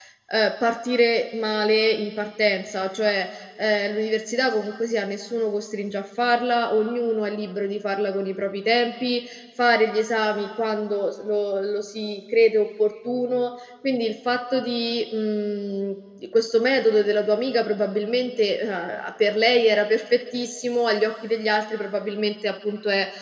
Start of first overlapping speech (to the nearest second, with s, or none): none